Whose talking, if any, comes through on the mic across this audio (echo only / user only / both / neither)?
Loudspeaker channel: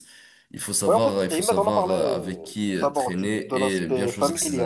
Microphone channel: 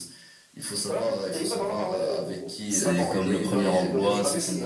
both